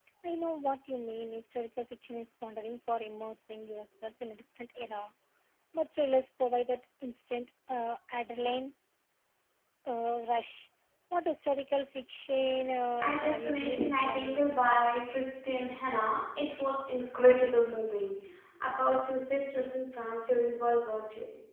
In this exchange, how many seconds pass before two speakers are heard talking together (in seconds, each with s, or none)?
13.0 s